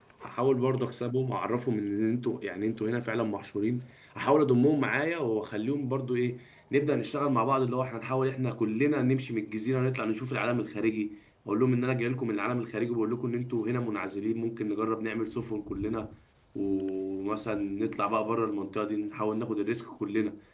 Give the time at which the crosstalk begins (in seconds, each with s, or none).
none